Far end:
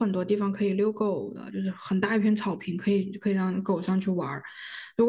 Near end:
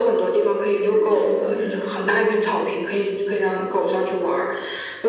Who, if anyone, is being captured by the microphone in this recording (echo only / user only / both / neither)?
both